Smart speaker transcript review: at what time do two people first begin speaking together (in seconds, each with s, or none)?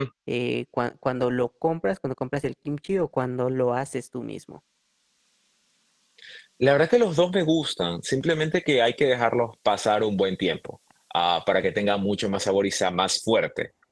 none